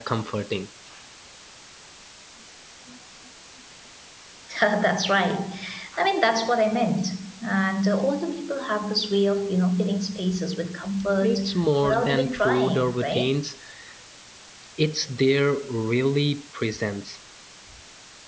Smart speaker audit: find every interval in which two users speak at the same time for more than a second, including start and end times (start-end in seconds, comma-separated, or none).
11.8-13.3